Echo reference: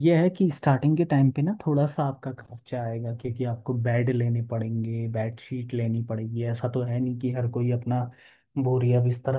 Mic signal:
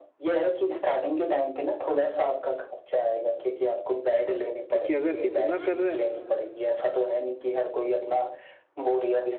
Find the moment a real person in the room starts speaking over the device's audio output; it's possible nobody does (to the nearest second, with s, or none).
5 s